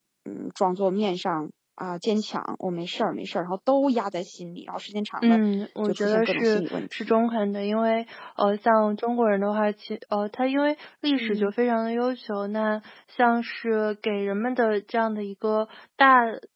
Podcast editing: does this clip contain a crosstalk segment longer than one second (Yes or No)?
Yes